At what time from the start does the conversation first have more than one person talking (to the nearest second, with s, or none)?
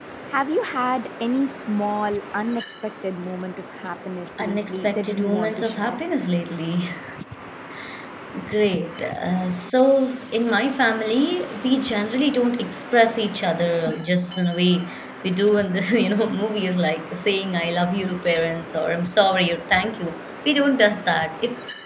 4 s